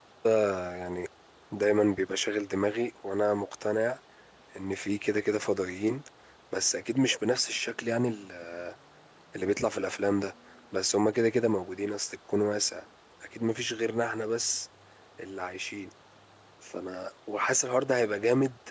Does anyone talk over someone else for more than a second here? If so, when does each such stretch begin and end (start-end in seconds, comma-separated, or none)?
none